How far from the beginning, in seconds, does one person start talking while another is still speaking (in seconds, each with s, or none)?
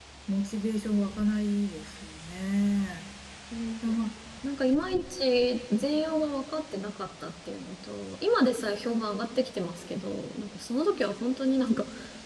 none